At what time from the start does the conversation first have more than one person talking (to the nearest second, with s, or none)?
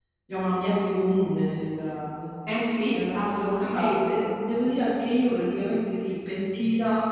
3 s